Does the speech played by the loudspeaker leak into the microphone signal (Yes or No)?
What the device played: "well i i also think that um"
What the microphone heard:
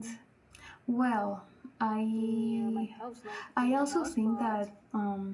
Yes